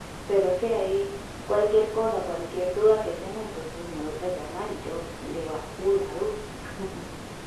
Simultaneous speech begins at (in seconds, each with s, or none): none